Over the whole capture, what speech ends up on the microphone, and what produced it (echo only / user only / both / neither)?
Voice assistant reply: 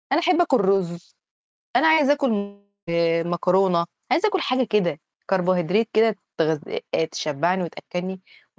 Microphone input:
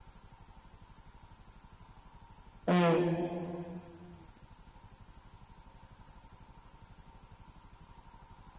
user only